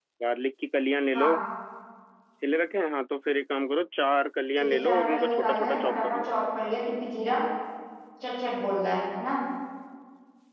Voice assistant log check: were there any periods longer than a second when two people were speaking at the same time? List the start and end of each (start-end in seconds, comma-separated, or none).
4.6-6.3